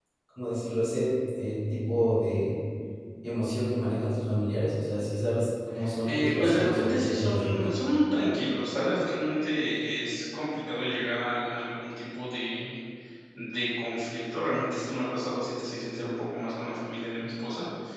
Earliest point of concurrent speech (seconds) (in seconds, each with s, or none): 6.0 s